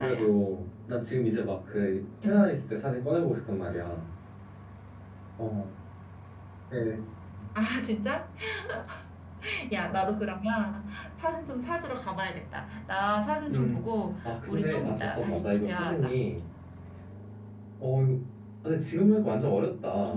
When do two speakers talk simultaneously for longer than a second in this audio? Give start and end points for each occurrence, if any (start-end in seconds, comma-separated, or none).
14.2-16.1